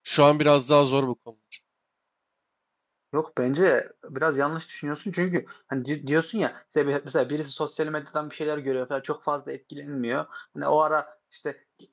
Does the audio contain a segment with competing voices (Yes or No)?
No